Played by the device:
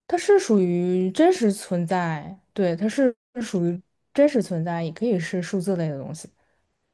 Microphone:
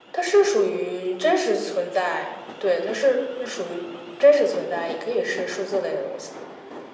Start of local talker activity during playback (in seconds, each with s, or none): none